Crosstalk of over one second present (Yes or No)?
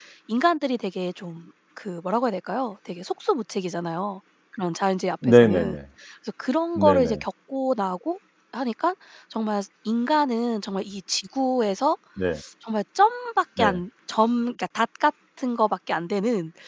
No